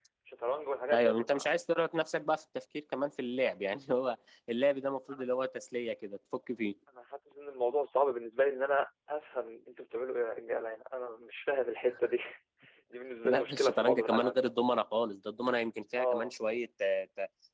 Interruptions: present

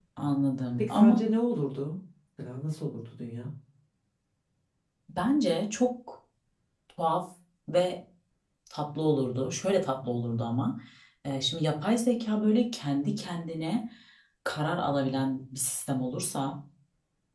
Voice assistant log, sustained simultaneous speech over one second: none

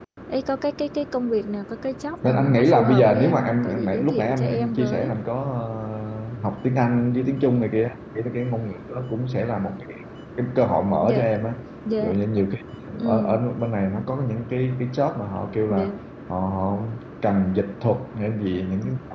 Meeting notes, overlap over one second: present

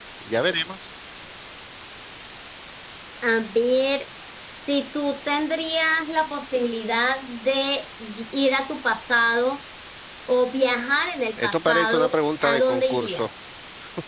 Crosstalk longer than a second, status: present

